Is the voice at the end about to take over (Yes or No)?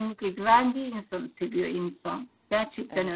Yes